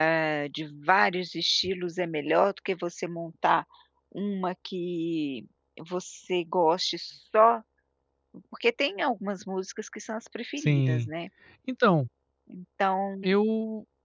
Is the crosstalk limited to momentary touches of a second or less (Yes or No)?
Yes